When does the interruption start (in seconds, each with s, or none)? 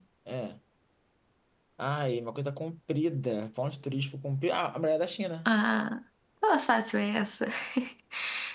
none